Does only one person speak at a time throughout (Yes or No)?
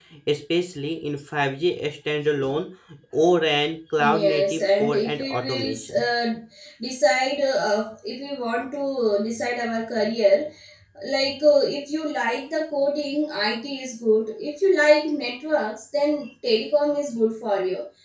No